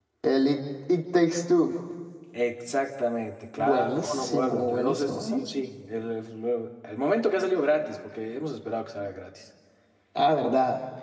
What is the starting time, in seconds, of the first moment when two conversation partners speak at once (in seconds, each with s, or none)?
3.6 s